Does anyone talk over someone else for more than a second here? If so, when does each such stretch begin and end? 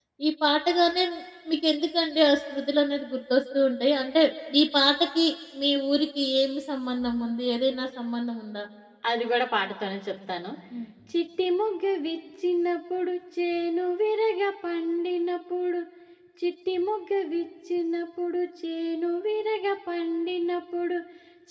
none

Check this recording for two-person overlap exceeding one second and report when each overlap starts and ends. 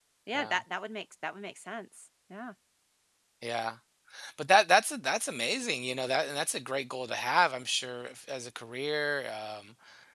none

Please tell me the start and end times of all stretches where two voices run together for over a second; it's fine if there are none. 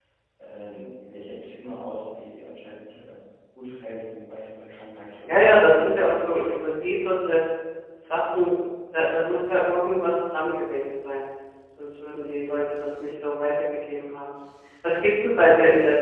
5.2-6.7

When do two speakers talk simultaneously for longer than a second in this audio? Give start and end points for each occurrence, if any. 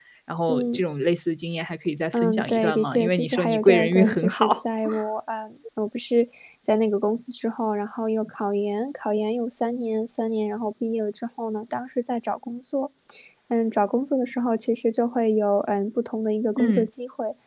2.1-4.6

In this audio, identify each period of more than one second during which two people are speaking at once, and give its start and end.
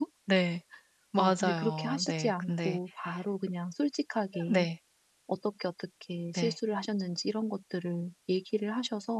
1.2-2.8

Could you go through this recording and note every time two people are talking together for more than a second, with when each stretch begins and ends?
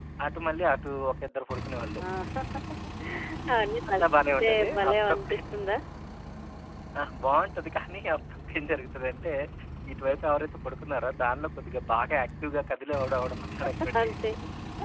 3.9-5.7

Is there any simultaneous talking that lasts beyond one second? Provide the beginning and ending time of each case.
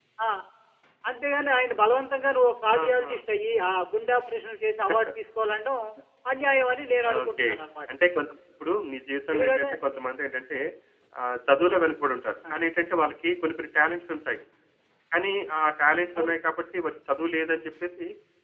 none

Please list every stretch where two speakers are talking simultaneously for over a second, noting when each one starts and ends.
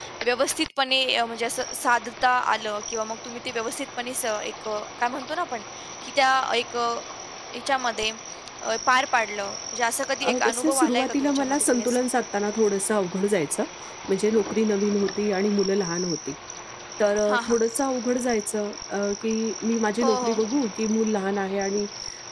10.2-12.1

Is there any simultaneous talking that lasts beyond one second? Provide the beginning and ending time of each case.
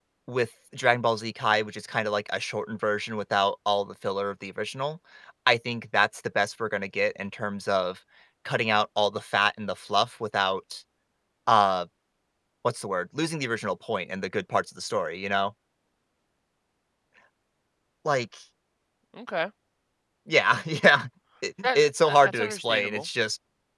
21.6-23.1

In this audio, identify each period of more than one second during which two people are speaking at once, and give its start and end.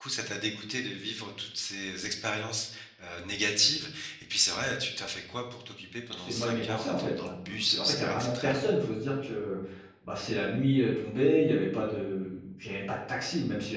6.1-8.8

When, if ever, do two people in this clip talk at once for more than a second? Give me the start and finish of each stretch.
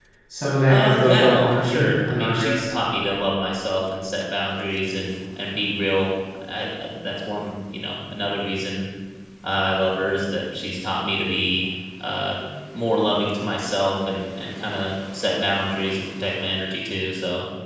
0.7-2.6

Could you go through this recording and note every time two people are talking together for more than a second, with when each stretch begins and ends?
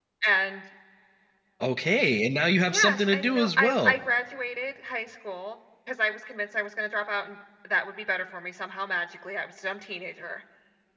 2.7-4.0

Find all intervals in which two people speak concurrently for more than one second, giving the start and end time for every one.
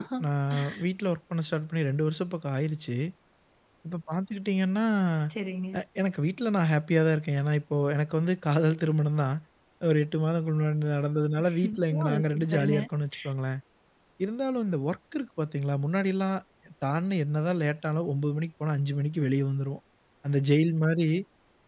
11.5-12.8

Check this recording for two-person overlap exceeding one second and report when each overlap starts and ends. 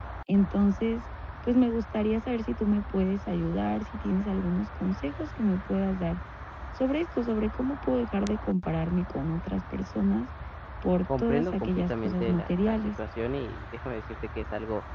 11.2-13.0

